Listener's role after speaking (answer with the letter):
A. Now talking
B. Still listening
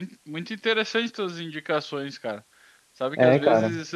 B